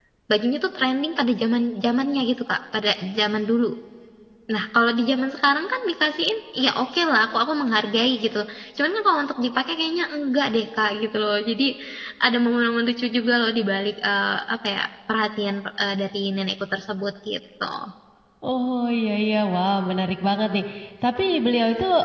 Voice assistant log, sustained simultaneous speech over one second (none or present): none